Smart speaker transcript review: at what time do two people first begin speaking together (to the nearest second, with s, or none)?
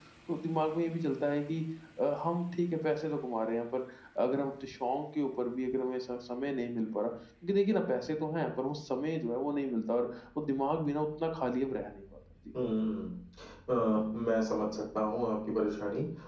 none